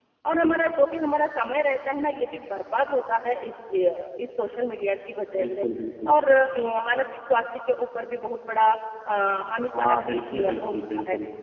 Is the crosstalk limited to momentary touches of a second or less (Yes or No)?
No